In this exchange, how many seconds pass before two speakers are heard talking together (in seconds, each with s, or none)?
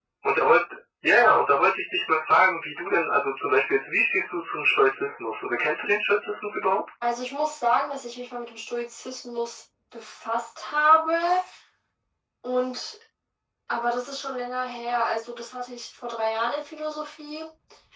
none